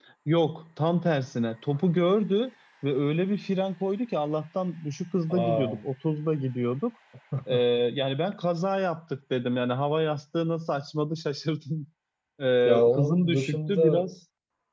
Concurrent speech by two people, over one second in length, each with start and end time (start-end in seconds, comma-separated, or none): 12.7-14.0